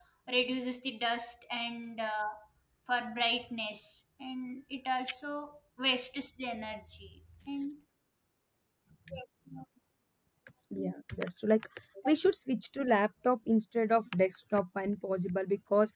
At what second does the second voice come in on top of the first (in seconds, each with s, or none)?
none